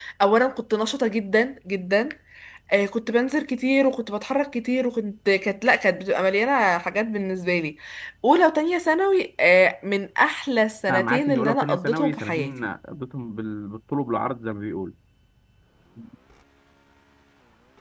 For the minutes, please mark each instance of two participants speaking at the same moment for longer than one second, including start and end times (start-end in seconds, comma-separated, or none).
10.9-12.5